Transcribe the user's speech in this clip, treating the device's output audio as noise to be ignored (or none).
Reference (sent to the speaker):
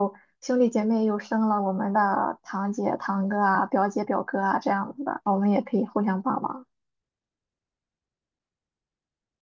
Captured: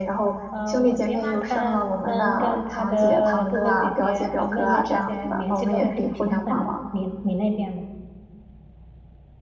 呃，我爹妈他们跟他的哥哥姐姐还有妹妹这些联系都还挺频繁的。你你那边呢？